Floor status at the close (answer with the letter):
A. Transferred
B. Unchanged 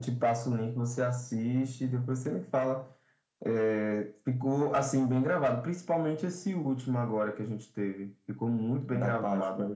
A